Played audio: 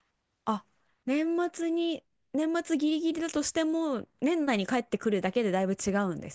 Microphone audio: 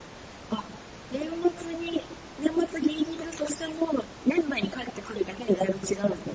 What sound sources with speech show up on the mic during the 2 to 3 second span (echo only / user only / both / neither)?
echo only